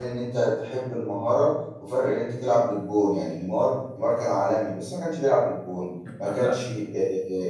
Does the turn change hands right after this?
No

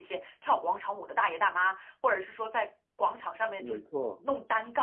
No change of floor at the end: Yes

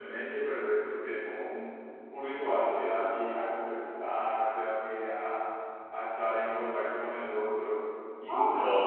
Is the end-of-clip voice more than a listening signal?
Yes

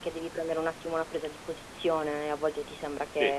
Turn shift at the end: No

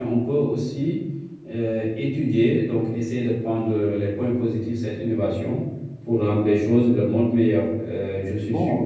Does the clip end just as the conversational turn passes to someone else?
No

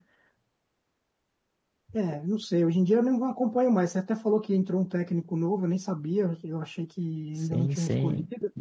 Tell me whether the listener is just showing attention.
No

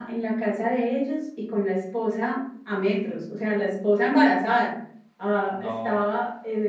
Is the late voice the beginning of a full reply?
No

